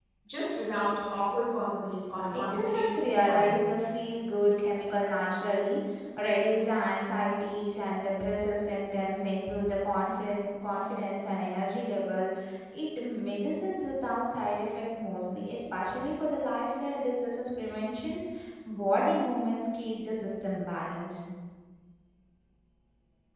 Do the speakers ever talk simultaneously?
Yes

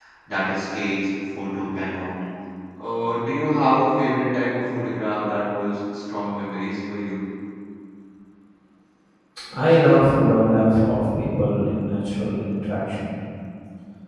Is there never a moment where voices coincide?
Yes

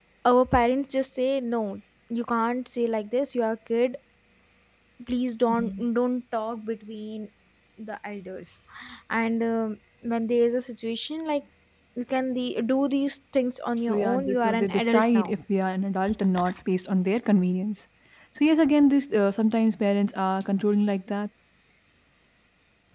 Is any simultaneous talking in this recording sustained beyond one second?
Yes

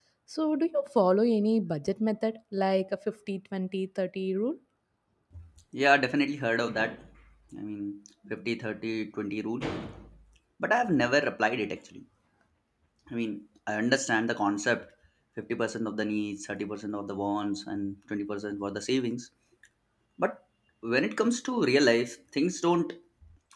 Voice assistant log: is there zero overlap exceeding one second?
Yes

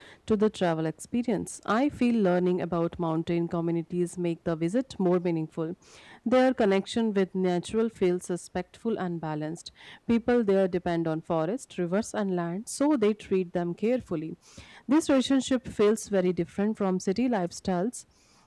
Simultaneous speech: No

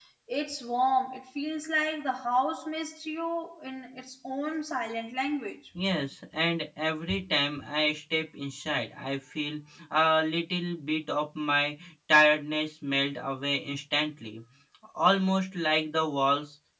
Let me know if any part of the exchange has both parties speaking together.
No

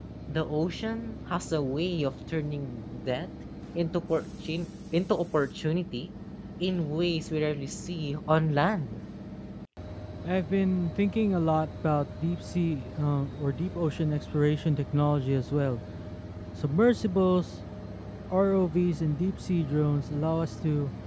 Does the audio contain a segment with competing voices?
No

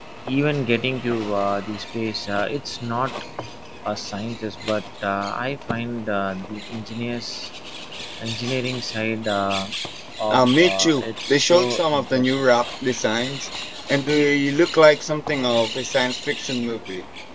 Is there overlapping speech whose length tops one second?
Yes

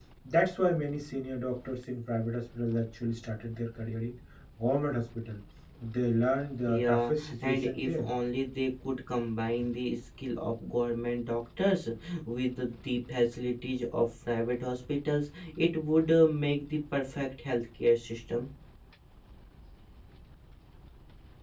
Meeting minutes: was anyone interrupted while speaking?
Yes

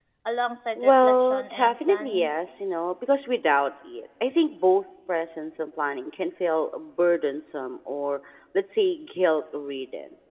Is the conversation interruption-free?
No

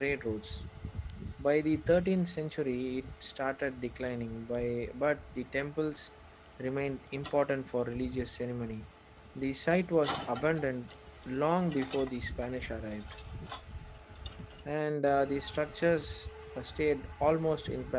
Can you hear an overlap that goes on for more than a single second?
No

